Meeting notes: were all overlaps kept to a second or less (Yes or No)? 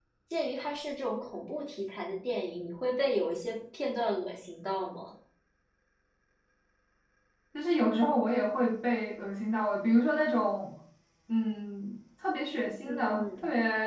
Yes